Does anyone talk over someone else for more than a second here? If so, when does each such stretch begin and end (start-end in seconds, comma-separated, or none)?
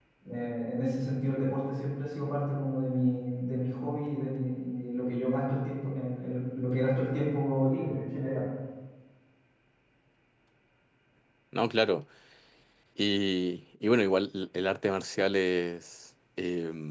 none